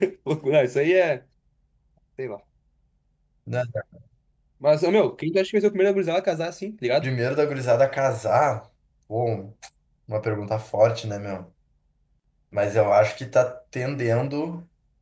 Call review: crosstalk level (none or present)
none